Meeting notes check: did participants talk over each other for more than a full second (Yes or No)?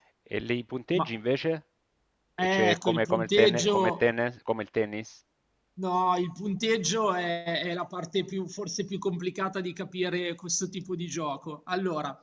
Yes